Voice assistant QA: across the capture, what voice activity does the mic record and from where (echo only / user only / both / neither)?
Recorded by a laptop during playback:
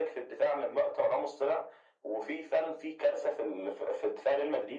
echo only